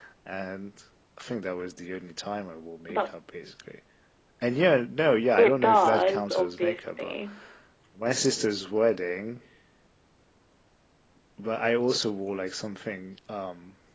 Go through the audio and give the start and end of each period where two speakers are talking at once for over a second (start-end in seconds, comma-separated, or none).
5.4-7.1